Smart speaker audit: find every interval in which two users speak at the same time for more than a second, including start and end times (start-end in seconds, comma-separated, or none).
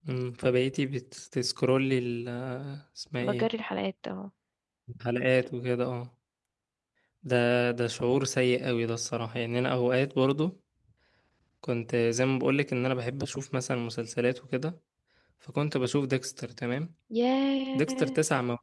none